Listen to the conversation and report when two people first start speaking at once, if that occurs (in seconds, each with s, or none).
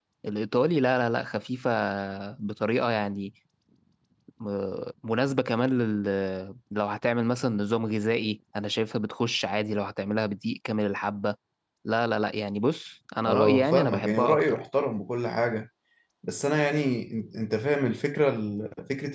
13.3 s